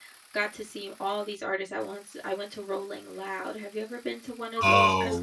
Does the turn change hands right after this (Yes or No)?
Yes